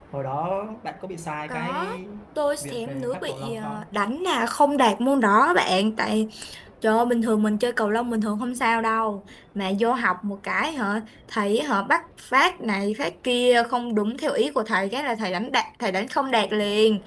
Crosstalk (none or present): present